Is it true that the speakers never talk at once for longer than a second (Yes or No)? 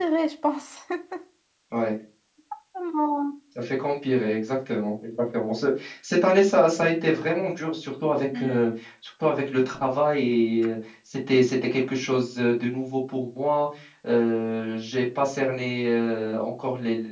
Yes